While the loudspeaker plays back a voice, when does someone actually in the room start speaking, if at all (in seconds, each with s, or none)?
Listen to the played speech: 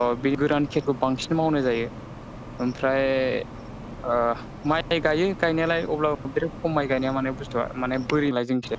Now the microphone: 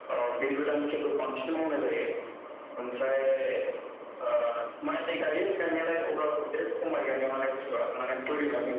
none